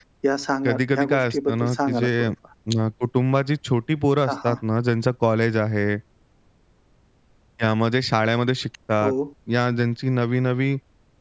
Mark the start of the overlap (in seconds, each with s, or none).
0.6 s